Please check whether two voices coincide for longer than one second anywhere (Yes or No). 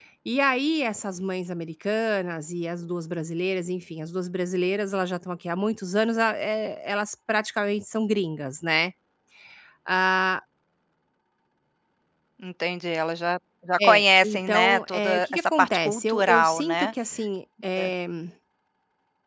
Yes